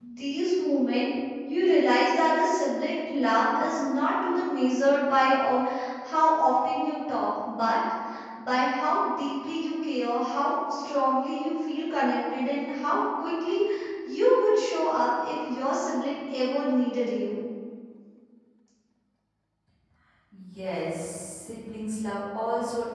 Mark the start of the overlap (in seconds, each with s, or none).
none